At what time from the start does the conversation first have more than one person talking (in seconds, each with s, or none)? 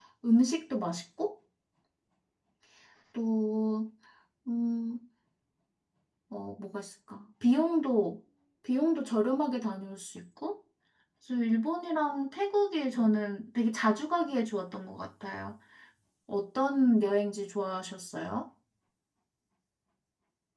none